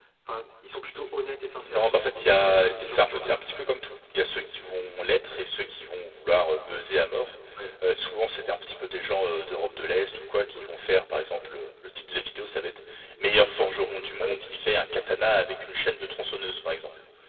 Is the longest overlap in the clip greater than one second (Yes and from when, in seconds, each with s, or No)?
Yes, from 1.6 s